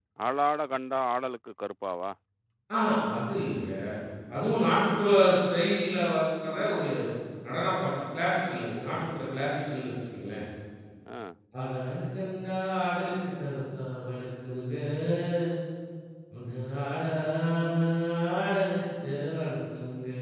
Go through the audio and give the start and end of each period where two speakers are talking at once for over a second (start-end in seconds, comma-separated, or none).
none